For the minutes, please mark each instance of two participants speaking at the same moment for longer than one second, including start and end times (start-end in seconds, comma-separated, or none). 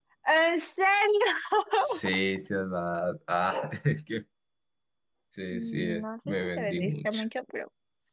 5.5-7.2